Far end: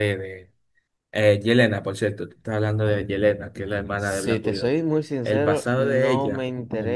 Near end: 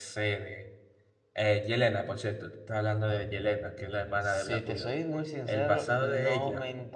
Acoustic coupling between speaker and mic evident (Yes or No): Yes